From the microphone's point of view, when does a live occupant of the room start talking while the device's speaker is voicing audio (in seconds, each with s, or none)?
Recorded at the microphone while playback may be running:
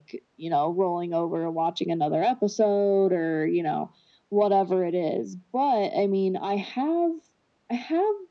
none